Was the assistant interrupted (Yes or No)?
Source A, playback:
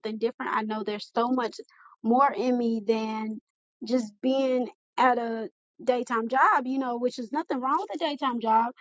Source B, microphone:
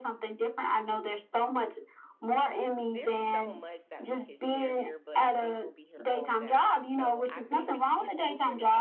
Yes